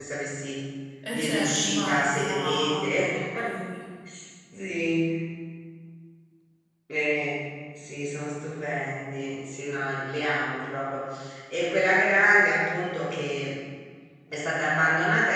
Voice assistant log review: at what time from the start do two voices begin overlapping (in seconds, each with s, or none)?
1.1 s